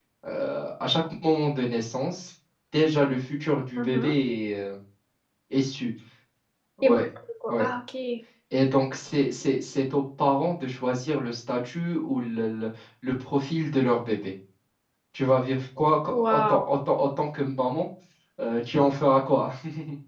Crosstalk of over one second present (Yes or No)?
No